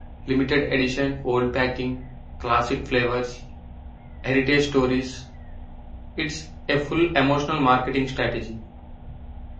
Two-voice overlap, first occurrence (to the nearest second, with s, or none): none